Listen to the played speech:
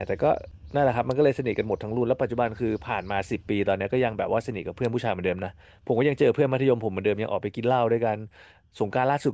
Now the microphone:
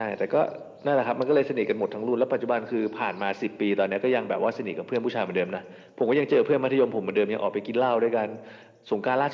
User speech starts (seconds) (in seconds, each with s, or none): none